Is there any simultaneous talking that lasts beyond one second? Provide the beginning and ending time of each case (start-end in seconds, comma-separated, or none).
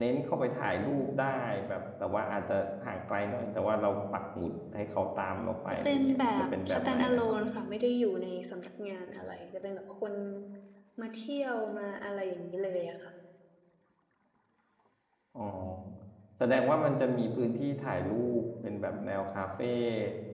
5.8-7.4